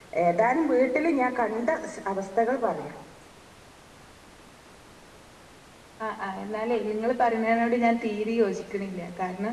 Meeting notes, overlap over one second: none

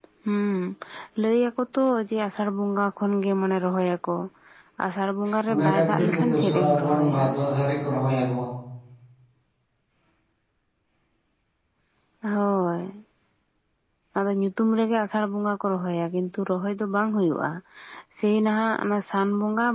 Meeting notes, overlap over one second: present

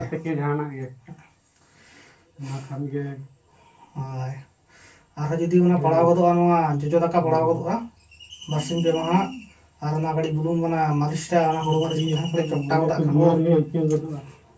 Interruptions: present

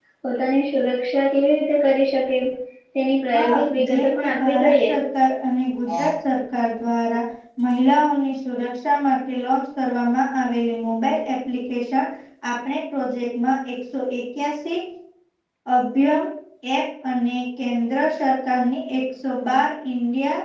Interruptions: present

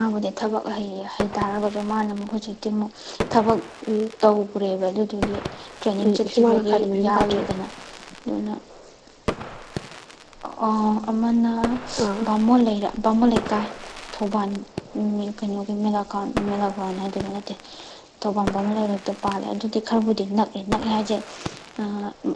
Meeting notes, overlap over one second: present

